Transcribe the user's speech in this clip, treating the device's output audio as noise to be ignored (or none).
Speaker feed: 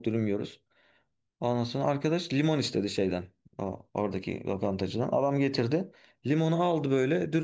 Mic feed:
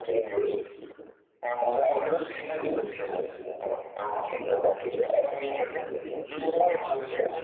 none